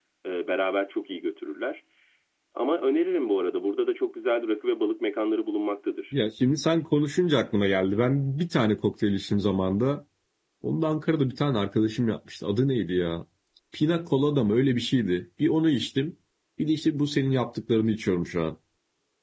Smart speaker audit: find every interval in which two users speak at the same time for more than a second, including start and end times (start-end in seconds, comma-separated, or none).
none